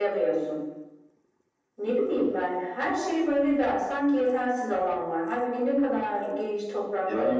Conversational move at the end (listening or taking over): taking over